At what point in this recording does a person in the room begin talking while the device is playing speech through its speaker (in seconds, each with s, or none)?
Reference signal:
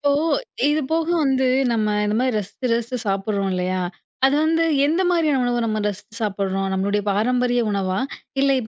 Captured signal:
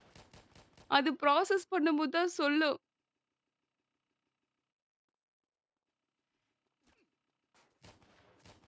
1.0 s